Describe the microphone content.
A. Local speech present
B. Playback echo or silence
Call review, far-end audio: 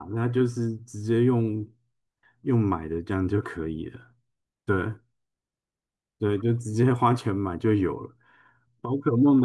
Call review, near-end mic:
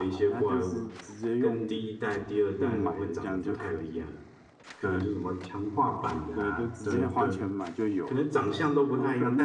A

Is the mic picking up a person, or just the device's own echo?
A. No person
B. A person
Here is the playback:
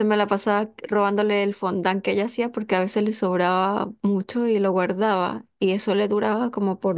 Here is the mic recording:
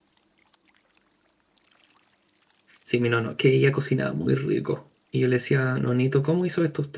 B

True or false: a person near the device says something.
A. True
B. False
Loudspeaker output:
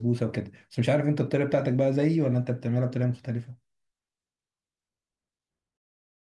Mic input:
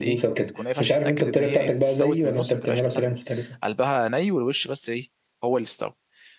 A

